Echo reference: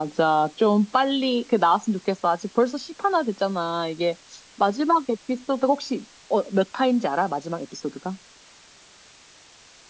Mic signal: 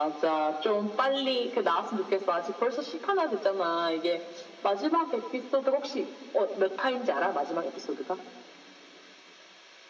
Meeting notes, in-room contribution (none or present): none